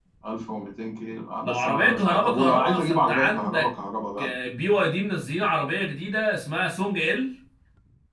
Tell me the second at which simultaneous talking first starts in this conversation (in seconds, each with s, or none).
1.4 s